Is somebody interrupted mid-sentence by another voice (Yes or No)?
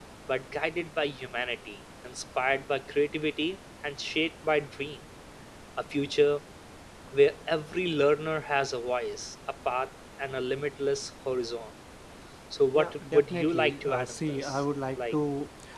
Yes